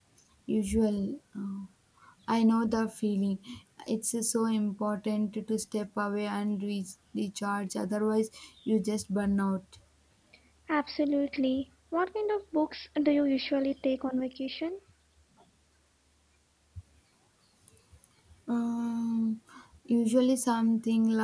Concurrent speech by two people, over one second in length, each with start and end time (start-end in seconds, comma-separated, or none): none